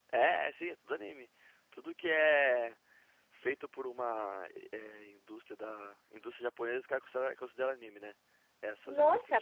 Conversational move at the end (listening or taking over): taking over